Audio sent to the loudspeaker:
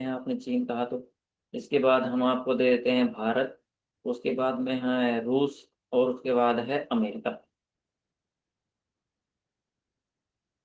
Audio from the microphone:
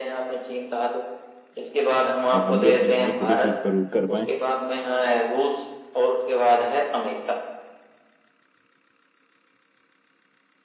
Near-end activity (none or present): present